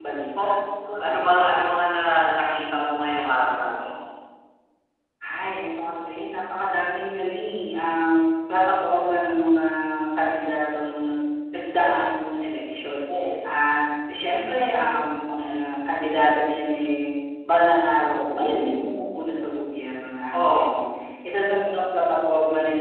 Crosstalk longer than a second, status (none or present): none